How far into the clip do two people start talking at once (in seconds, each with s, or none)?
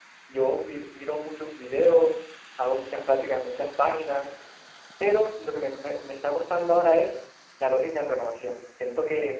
none